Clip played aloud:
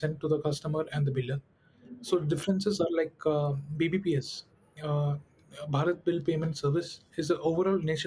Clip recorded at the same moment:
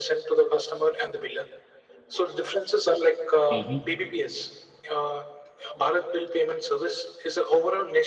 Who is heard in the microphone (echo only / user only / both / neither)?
both